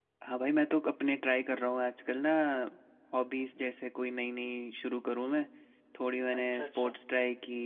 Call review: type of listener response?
listening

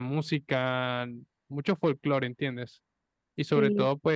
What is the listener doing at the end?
listening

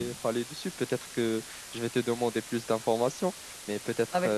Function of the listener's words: listening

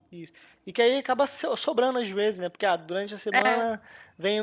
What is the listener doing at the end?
listening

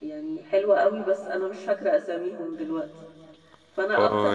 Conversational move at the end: taking over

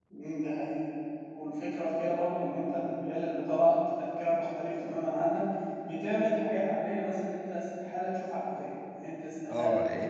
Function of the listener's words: taking over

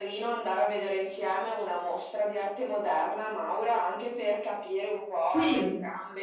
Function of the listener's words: listening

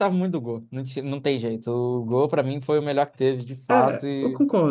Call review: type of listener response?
taking over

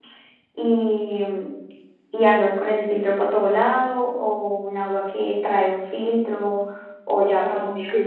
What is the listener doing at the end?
listening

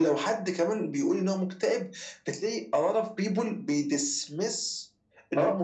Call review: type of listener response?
listening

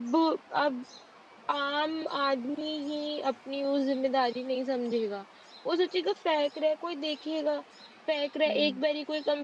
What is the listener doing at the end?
listening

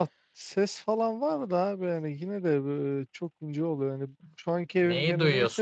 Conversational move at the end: taking over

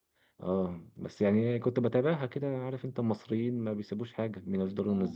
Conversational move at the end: listening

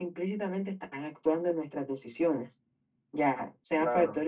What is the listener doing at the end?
listening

